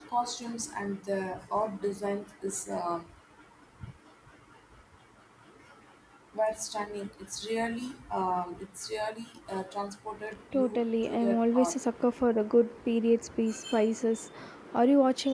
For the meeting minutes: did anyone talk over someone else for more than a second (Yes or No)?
Yes